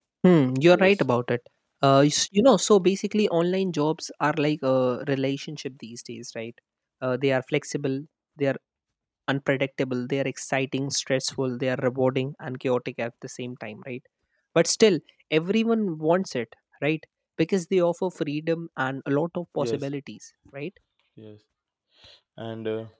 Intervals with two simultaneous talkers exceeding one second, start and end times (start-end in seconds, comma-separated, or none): none